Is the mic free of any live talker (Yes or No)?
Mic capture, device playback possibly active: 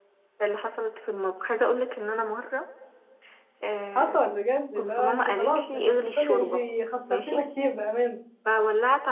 No